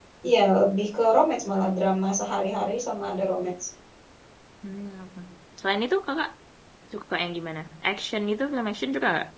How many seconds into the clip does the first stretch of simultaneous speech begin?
none

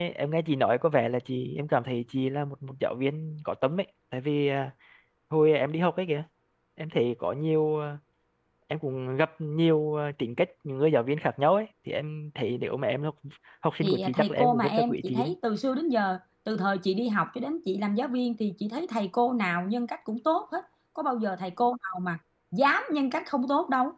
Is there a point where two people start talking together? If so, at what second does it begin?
13.8 s

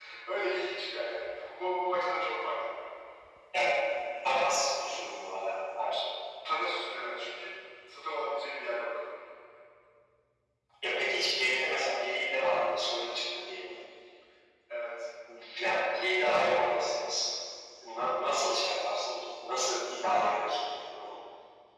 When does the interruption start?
none

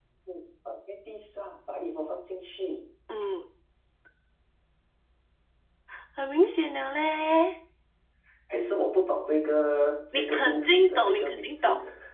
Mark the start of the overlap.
10.1 s

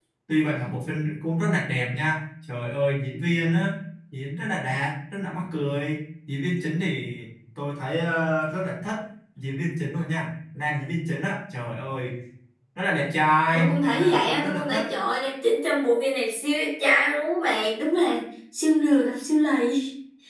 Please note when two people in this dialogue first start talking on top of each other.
13.5 s

